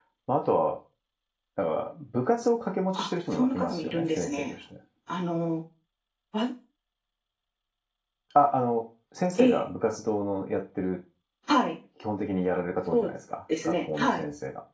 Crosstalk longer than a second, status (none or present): present